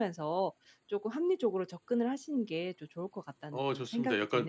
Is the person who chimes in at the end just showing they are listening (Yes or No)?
No